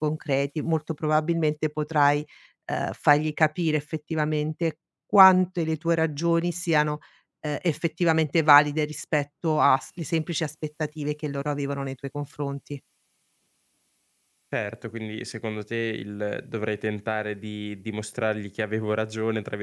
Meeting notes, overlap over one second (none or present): none